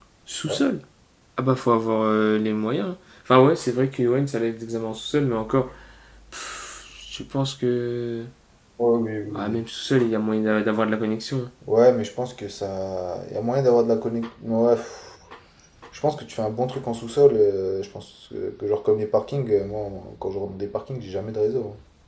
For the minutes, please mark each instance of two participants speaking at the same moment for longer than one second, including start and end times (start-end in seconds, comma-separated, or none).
none